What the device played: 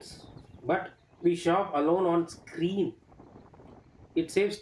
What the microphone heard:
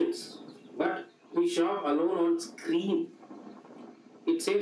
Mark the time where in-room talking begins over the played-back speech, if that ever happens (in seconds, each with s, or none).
none